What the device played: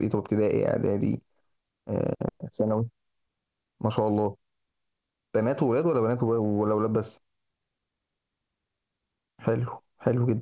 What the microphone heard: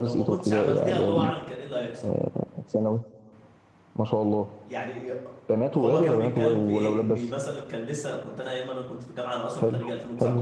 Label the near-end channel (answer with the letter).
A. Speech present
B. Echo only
A